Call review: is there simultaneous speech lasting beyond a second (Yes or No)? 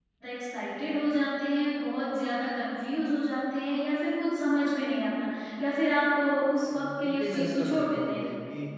Yes